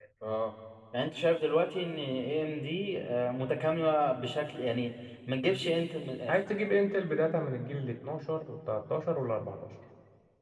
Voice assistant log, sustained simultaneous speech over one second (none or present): none